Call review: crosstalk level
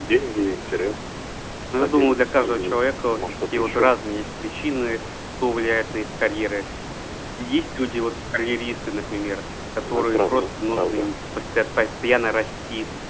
present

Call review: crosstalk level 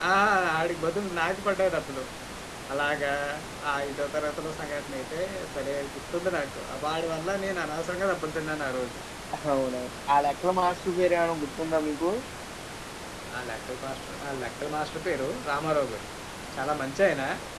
none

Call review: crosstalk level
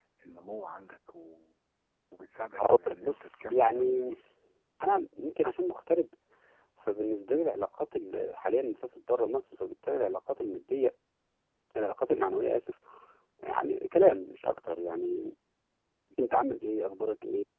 present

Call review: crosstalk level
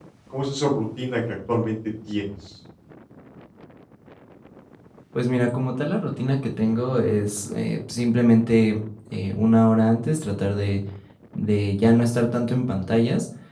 none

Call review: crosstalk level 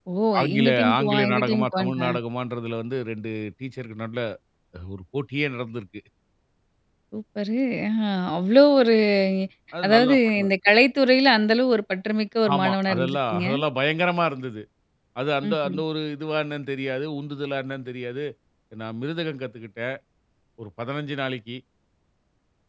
present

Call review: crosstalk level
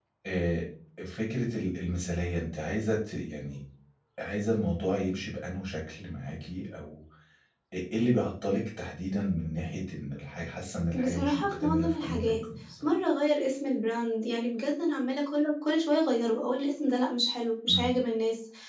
present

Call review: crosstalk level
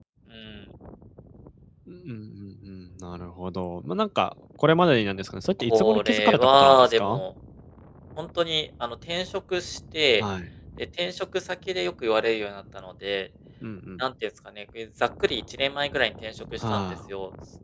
present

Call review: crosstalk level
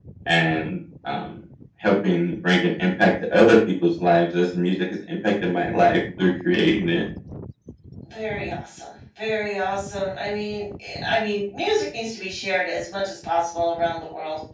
none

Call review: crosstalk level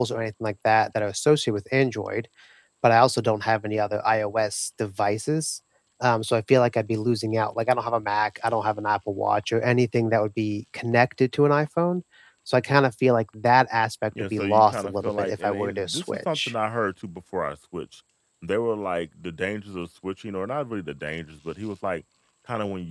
present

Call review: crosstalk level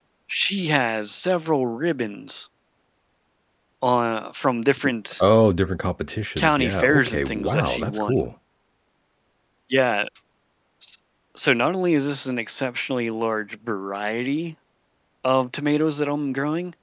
present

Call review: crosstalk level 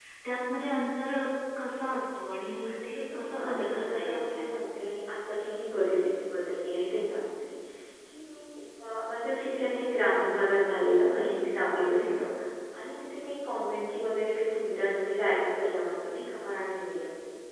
present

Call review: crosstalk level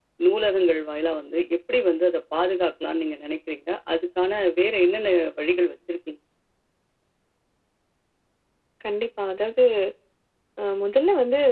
none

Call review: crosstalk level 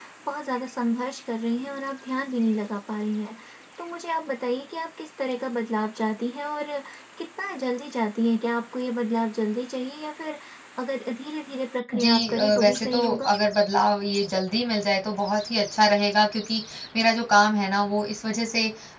present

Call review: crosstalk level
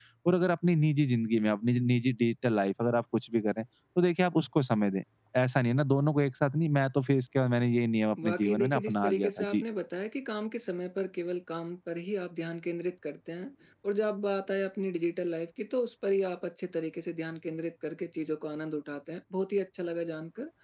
present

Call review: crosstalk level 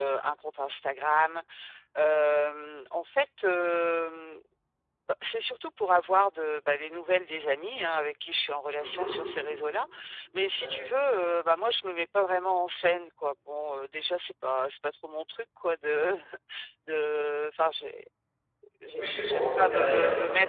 present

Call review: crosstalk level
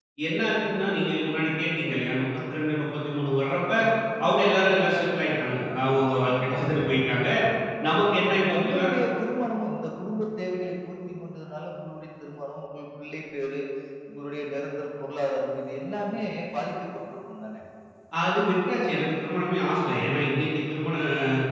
present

